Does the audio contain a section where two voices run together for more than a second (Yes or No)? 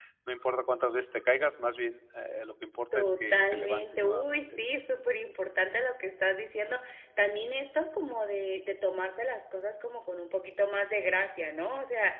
Yes